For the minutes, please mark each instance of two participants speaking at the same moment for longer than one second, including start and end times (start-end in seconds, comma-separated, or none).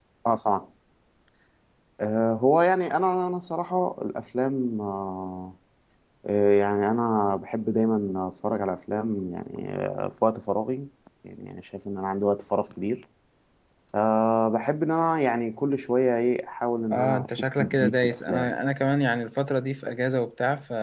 16.9-18.5